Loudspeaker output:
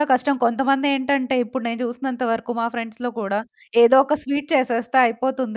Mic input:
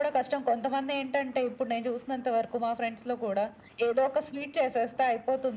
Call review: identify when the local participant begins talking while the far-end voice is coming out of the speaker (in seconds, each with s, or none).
none